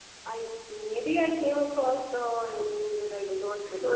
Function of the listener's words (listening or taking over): taking over